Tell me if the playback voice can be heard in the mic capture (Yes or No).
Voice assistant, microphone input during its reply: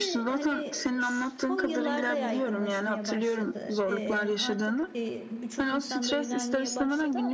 Yes